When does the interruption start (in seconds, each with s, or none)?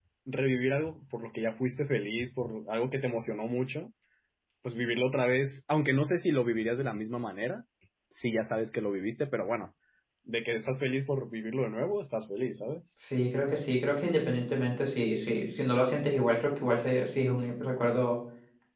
none